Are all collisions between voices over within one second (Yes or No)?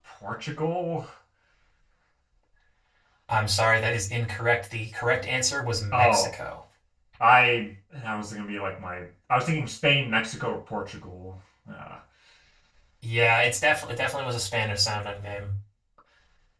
Yes